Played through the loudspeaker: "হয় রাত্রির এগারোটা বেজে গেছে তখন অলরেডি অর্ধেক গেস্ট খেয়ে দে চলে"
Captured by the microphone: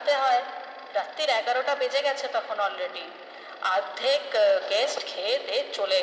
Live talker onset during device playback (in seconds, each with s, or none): none